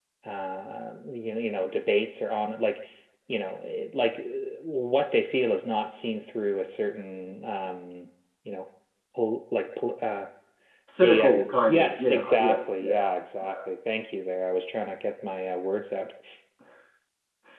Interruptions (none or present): present